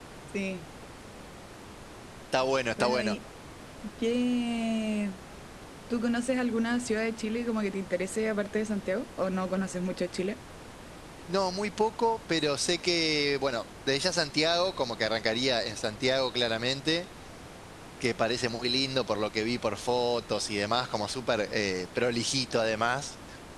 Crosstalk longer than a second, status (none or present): none